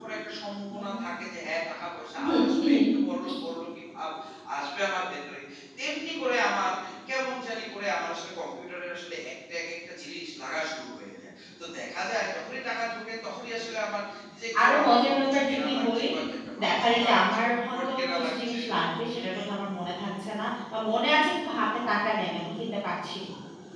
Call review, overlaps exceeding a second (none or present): present